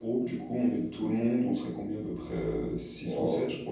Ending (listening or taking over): taking over